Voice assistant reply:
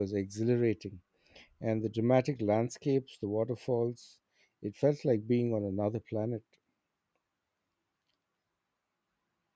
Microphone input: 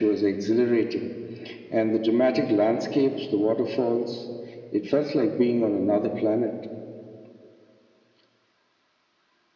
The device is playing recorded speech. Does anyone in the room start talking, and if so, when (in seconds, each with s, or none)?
none